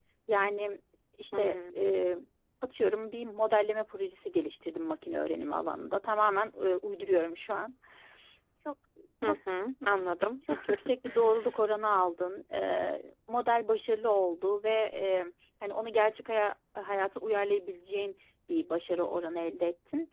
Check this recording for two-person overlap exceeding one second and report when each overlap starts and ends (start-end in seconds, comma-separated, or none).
none